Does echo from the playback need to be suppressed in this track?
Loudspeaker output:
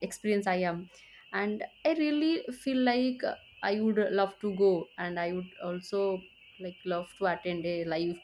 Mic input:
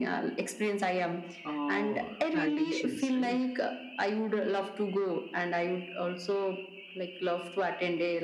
Yes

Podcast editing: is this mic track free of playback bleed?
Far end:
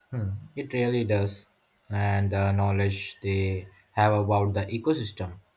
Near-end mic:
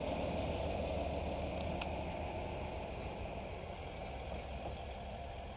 Yes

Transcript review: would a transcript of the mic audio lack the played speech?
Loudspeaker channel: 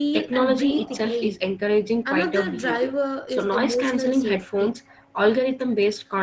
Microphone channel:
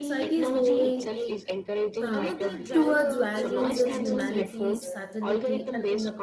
No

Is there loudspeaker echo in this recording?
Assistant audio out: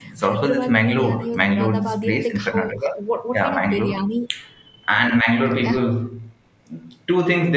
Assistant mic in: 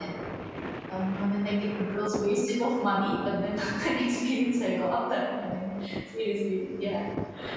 No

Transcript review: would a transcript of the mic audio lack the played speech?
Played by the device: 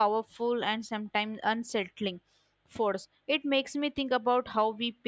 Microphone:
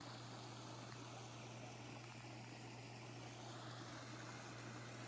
Yes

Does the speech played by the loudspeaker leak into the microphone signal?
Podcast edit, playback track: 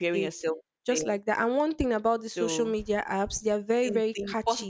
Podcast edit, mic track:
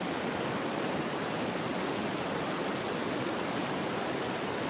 No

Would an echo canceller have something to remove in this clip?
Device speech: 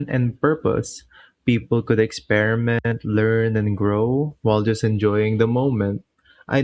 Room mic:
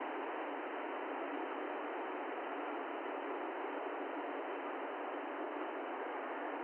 No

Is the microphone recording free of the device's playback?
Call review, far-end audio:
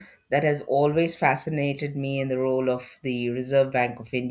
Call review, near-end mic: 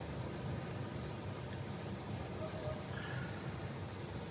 Yes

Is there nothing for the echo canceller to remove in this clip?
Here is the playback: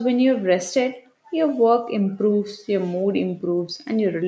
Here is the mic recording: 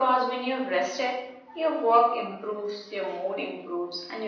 No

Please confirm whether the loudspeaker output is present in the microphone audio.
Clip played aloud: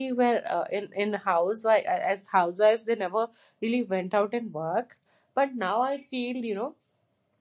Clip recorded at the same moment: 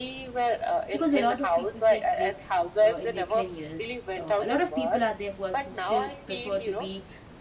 Yes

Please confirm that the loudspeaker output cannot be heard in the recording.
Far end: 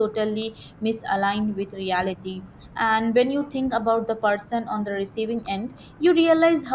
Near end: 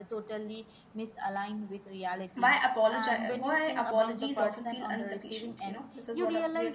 No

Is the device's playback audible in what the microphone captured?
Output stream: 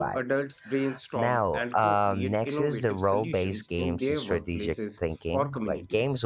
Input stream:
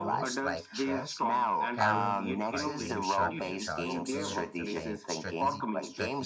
Yes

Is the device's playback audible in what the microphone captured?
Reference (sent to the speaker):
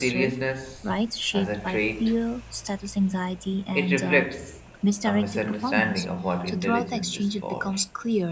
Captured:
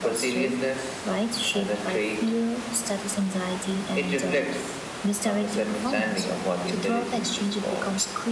Yes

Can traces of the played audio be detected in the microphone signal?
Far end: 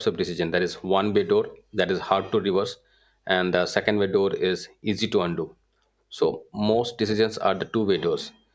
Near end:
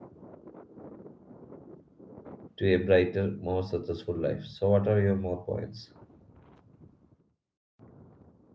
No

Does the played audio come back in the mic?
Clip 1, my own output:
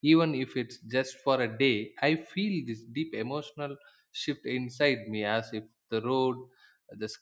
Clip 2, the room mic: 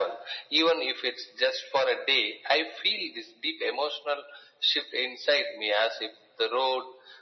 Yes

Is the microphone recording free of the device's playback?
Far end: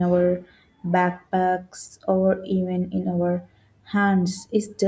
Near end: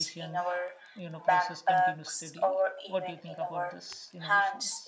No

